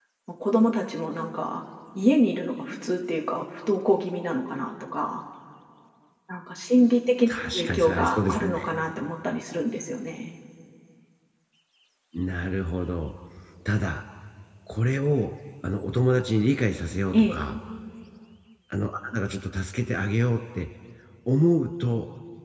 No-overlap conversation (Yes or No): No